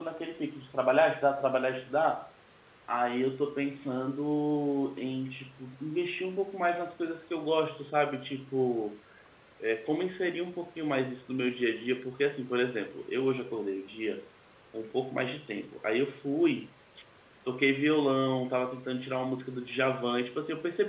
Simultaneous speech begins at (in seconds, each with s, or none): none